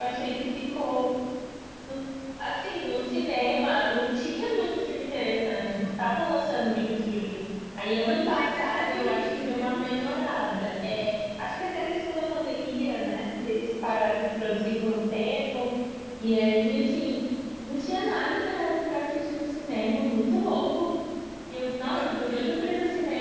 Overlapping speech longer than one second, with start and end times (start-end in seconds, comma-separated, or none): 8.0-9.8